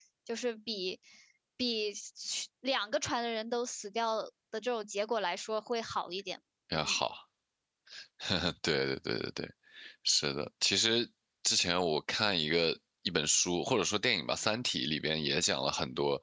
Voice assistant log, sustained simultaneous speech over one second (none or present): none